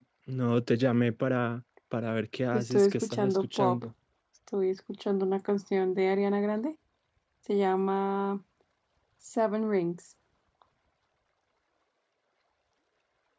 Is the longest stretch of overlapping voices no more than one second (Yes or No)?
No